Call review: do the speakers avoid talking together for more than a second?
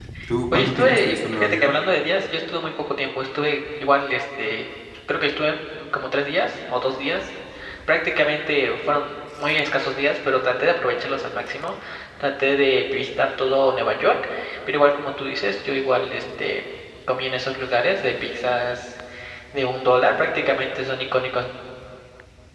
No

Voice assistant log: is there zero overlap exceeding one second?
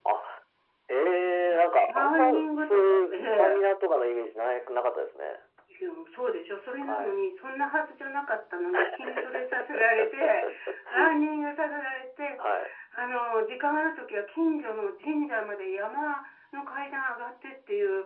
No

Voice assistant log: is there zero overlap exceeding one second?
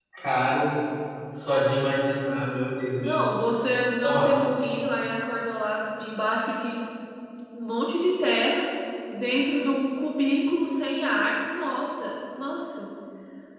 Yes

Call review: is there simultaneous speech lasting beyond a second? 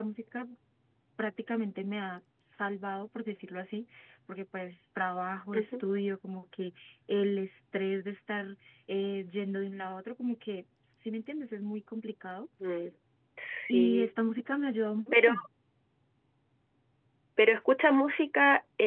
No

